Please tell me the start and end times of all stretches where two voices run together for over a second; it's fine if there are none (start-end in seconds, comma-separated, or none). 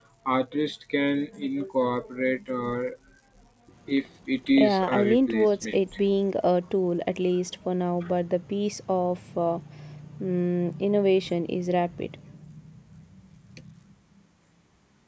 4.6-5.8